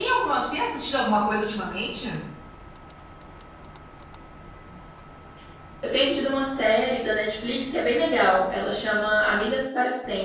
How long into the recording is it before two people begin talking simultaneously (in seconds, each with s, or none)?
none